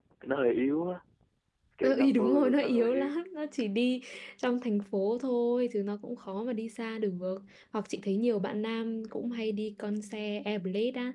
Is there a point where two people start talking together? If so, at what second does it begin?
1.8 s

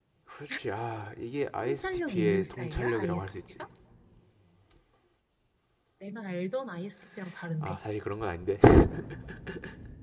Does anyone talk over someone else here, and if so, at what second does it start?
1.6 s

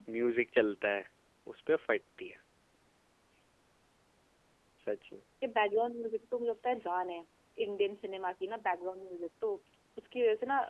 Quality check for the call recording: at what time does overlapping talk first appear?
none

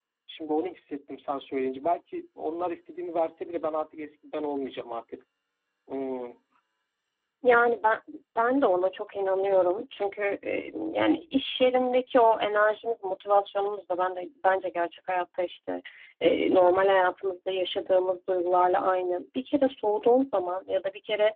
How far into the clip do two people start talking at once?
none

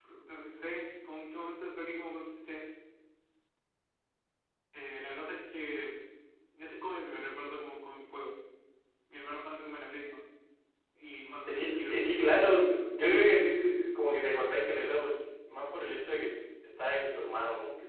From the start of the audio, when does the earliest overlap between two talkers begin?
11.5 s

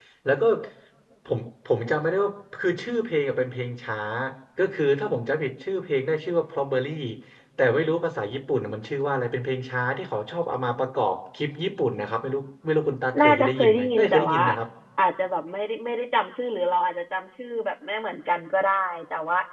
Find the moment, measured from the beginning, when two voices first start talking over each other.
13.1 s

